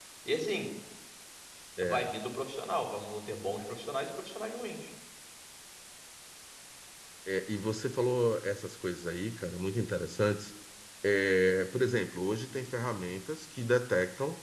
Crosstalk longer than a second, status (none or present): none